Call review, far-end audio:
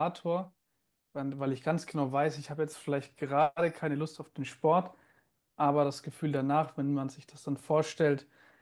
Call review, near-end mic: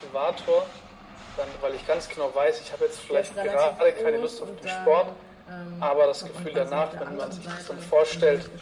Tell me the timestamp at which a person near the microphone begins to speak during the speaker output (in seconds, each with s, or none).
3.1 s